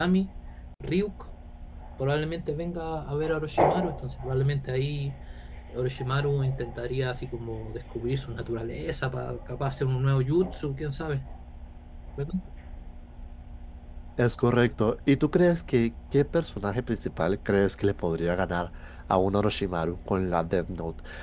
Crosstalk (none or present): none